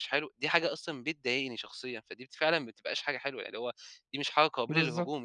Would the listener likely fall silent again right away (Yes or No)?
No